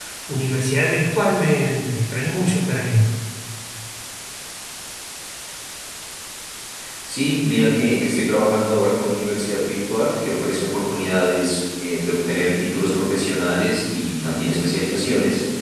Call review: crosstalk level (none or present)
none